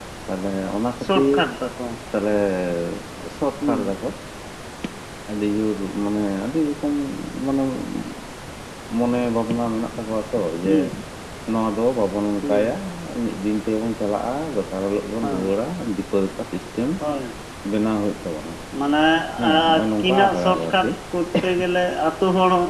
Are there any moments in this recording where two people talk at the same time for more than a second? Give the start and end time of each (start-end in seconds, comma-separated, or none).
19.5-20.9